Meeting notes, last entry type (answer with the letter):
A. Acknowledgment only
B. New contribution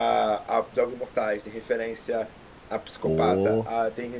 A